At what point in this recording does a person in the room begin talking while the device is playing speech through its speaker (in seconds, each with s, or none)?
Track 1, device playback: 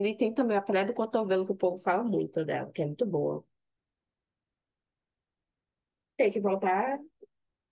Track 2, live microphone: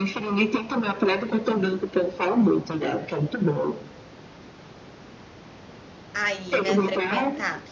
6.1 s